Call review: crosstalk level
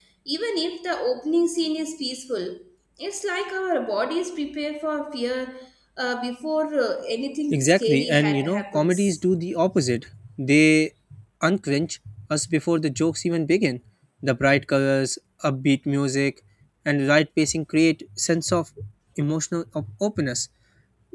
present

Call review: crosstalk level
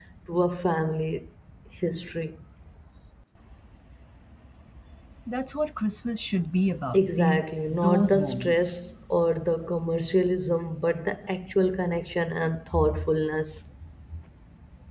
present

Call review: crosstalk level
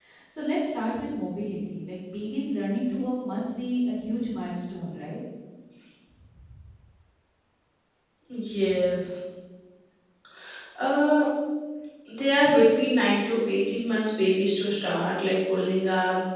none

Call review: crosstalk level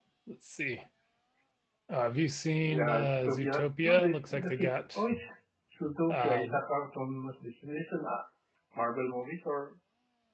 present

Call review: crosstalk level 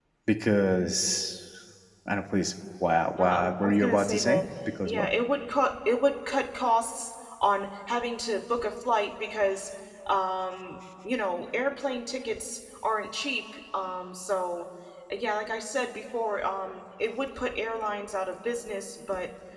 present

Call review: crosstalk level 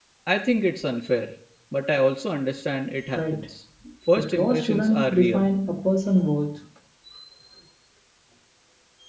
present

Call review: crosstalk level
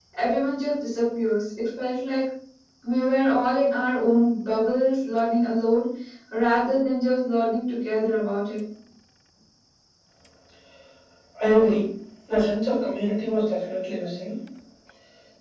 none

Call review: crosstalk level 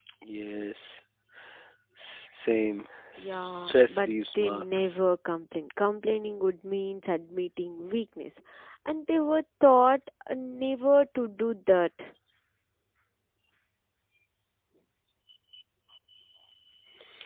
present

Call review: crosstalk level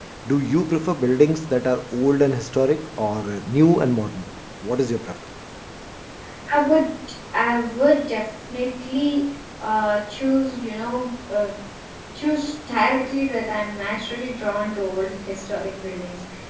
none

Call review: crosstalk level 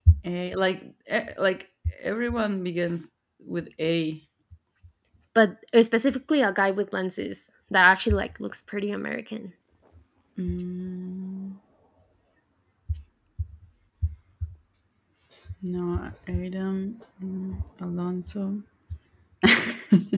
none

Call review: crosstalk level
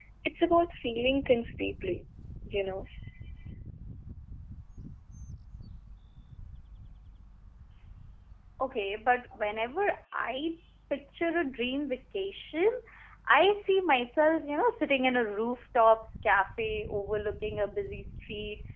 none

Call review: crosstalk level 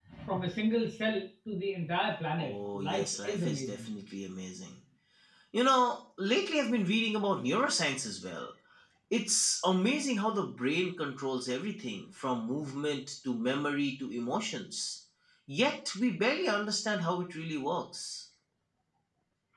present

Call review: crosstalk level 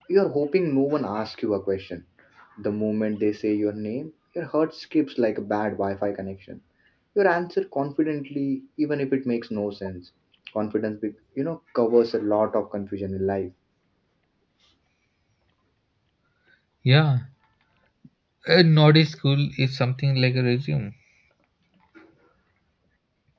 none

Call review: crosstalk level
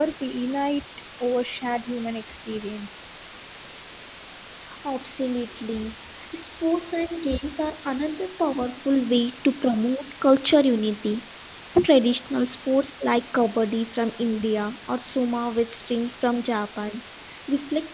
none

